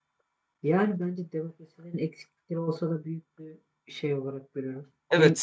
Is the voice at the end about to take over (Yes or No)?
Yes